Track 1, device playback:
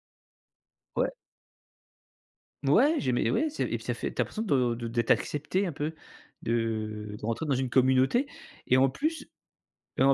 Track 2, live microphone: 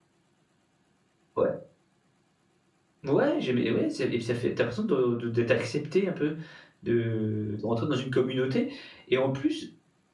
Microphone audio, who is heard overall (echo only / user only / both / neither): echo only